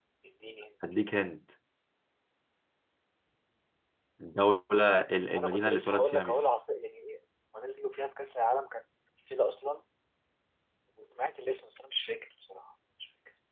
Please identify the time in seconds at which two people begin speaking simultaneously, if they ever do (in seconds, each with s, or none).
5.3 s